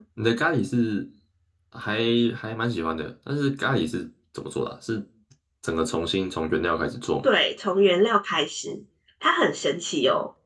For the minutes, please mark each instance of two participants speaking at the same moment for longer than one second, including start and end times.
none

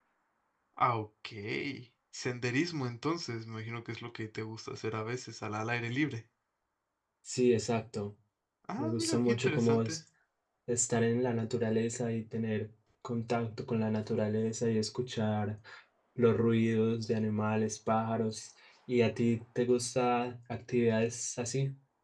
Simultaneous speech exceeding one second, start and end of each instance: 8.8-10.0

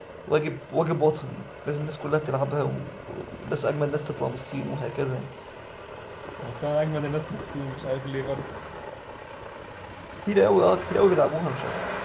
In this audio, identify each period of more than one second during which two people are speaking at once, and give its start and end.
none

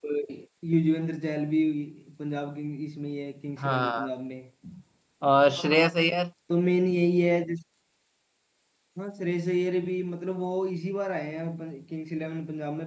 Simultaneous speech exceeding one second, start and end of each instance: none

